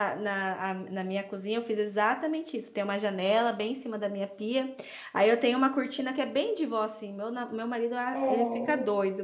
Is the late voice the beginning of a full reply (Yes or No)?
No